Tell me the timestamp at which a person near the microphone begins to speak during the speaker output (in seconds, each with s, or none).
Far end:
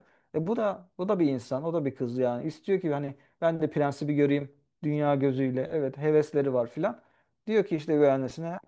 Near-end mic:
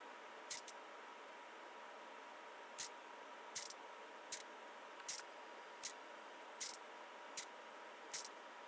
none